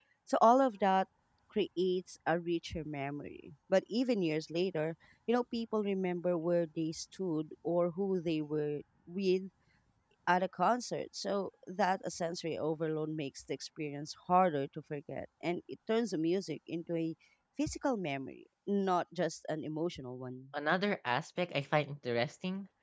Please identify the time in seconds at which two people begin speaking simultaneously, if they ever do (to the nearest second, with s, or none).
none